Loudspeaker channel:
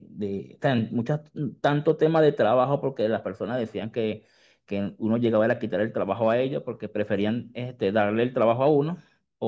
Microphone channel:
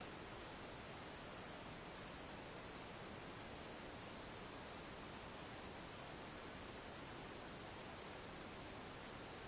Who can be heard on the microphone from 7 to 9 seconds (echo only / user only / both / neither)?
neither